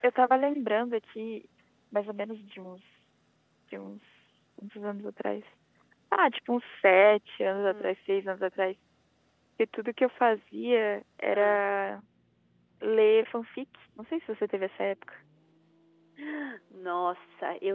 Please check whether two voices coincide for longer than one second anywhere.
No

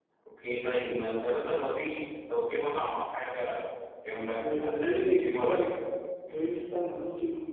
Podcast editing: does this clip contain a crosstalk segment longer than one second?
Yes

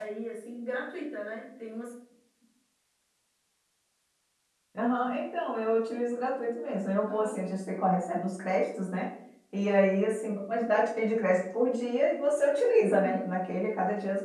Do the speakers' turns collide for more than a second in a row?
No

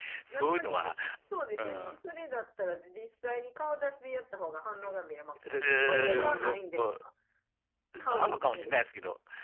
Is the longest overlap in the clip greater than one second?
Yes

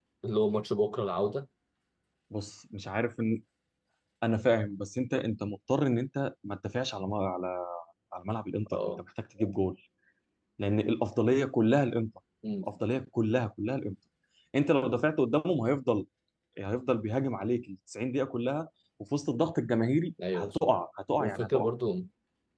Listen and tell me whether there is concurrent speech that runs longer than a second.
No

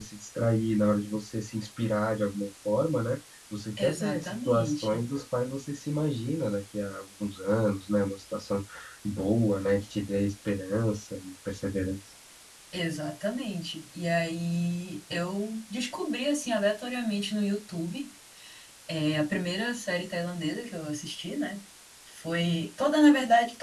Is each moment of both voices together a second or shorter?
No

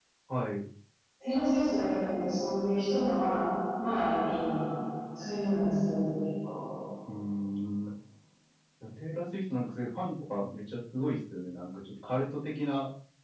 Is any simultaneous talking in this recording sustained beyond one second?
No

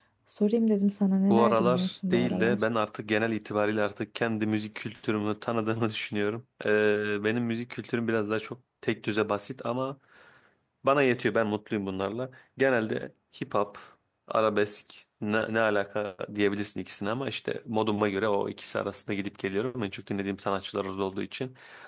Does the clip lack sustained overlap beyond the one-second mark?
No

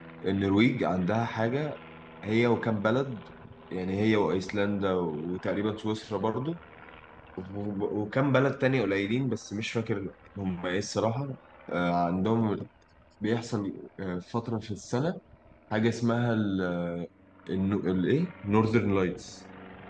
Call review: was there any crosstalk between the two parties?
No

